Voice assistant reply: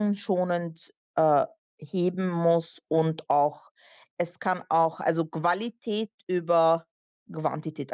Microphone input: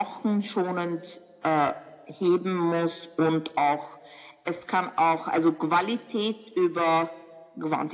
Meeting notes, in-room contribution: none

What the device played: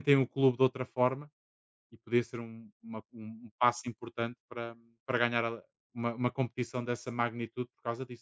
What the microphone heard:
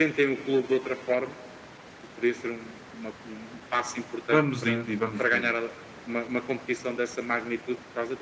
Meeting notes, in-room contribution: present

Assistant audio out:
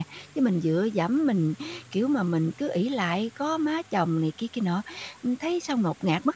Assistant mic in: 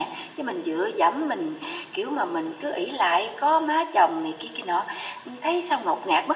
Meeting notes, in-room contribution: none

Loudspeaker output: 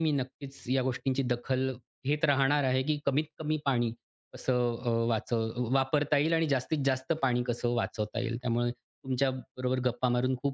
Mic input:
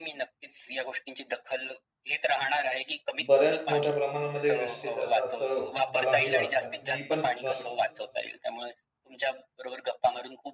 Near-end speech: present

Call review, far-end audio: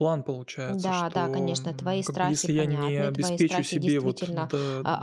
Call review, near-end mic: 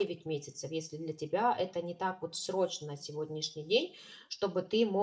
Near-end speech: present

